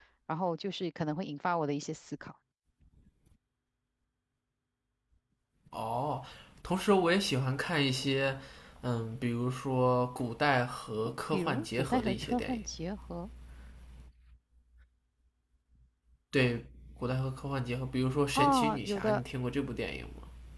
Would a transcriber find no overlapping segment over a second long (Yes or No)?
No